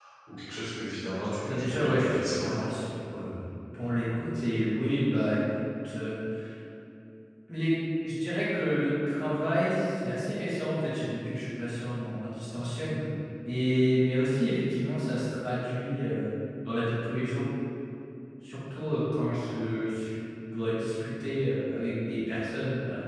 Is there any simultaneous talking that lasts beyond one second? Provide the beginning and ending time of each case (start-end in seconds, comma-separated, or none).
1.4-2.6